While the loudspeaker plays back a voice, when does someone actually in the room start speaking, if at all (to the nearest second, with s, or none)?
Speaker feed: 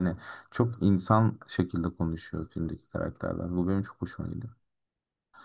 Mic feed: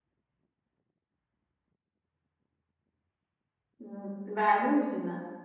4 s